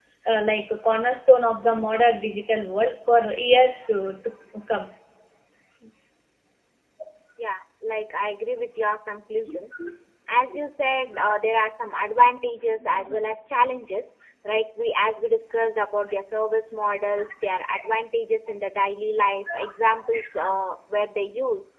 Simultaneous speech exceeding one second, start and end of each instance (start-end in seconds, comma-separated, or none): none